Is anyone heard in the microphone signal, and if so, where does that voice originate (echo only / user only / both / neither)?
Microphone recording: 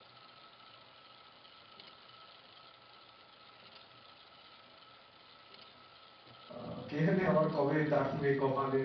user only